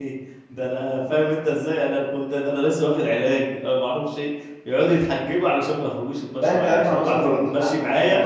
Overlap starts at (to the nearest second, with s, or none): 6 s